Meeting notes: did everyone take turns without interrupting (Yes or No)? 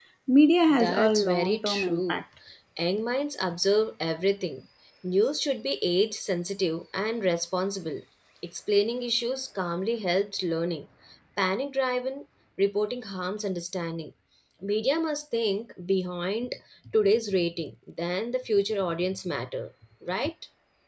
No